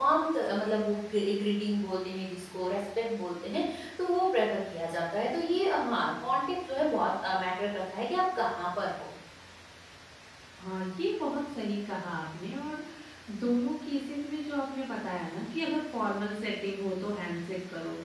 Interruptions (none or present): none